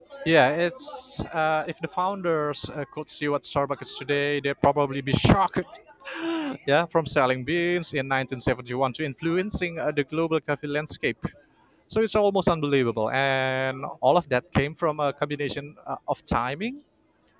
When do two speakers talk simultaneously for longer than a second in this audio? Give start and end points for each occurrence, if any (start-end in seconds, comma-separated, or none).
none